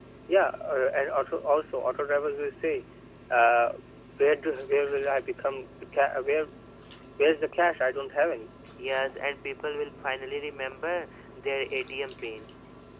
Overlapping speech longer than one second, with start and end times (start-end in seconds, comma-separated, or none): none